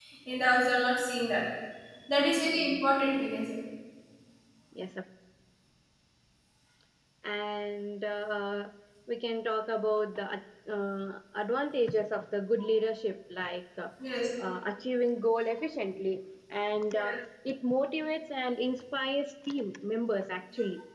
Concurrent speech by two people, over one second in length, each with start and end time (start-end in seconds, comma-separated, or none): none